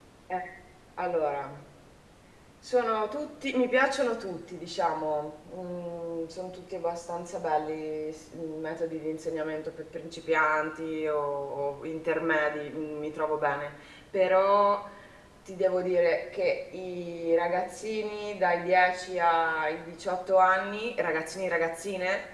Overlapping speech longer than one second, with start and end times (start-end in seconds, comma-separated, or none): none